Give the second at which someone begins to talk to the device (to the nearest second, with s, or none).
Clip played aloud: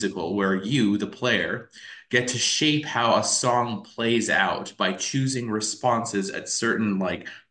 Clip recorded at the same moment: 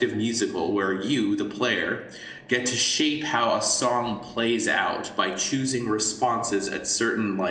none